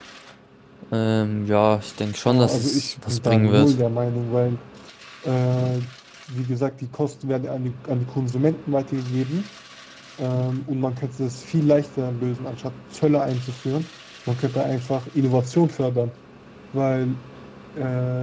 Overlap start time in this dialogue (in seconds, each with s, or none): 2.2 s